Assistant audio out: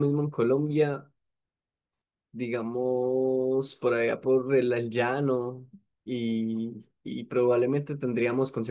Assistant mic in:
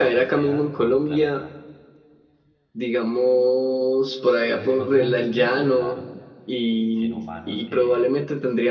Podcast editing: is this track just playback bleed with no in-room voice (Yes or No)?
No